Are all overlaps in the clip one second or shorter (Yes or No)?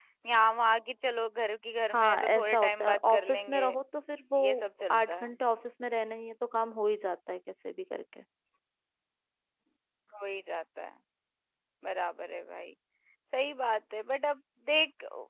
No